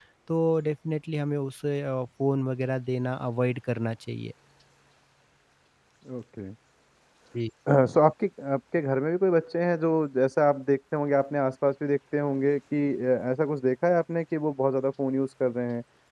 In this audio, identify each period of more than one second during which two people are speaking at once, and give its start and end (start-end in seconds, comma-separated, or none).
none